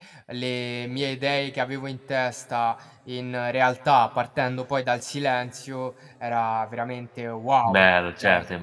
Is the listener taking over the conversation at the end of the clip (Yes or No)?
Yes